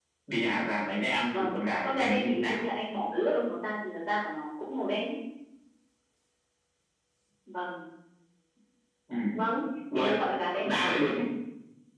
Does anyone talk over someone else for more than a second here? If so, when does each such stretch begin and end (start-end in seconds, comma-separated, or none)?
1.3-2.6